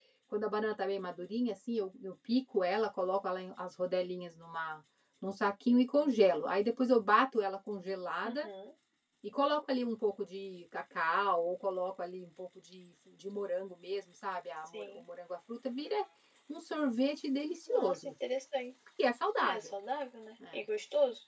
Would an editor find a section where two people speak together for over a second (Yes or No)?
No